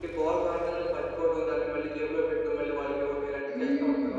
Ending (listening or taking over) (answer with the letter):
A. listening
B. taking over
B